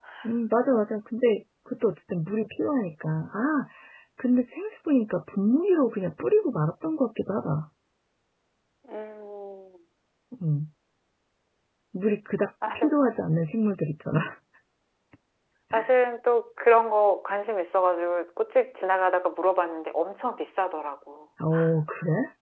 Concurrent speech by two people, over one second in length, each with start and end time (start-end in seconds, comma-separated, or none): none